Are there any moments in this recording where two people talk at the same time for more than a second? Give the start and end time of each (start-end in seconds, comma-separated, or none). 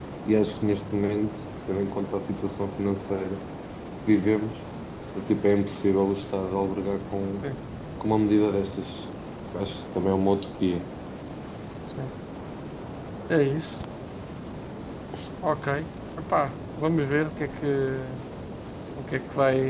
none